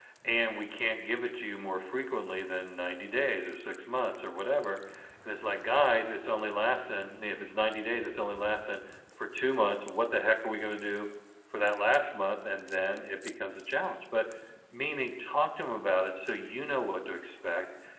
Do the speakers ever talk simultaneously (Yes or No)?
No